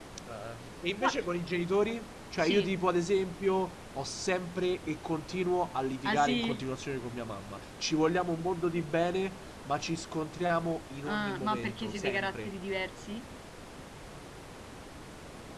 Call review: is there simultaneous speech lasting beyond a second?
Yes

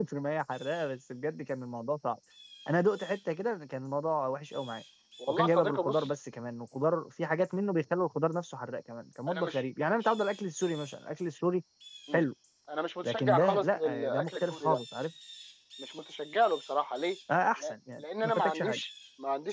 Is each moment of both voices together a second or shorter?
No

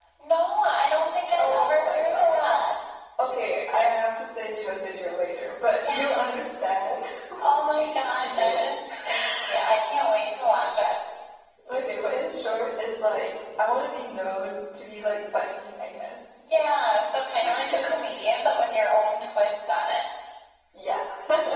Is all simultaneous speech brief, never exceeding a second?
No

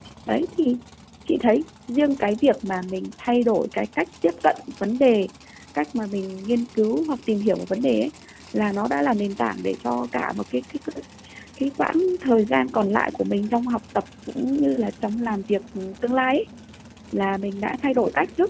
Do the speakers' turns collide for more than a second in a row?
No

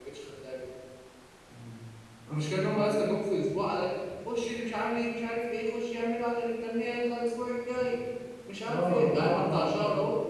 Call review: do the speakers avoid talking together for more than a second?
No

